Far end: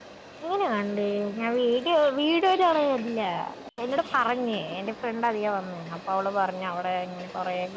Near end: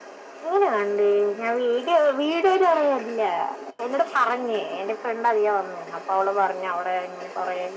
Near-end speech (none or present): none